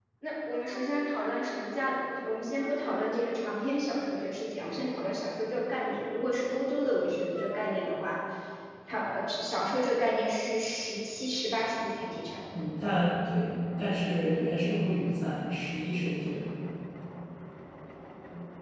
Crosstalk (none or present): none